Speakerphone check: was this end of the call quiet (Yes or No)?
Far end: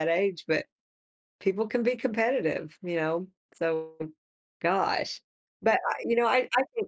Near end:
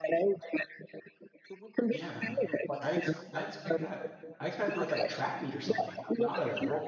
No